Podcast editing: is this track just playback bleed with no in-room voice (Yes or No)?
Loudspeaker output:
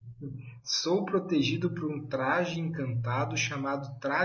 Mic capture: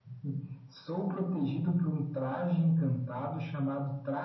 Yes